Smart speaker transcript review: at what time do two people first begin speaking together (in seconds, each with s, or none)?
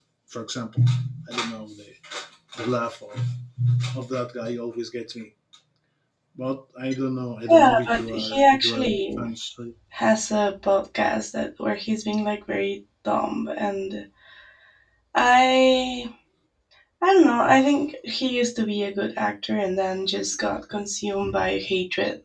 7.5 s